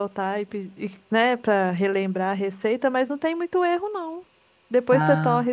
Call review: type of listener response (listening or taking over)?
listening